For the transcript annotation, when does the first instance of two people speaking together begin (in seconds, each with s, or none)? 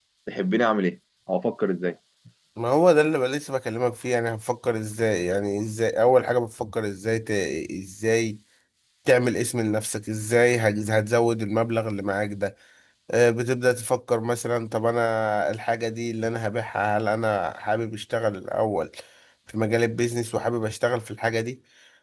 none